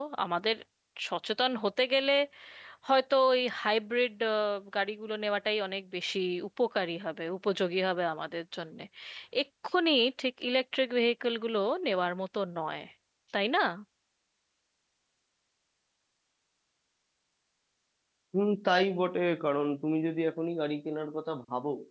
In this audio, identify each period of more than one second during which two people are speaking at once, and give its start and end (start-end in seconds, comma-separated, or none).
none